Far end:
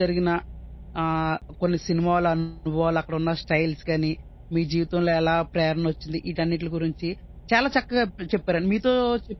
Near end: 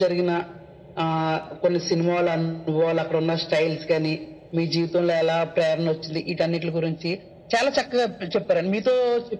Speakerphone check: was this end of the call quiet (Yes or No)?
Yes